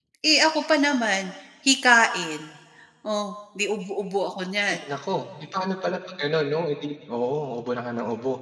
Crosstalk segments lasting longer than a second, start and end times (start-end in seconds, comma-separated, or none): none